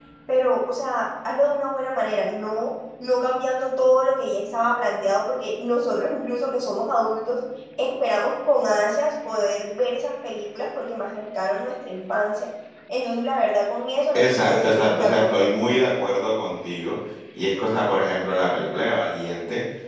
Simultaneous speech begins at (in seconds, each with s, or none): 14.1 s